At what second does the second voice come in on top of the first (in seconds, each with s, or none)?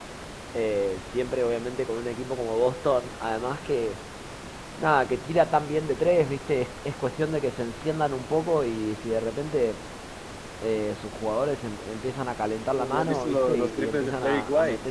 12.8 s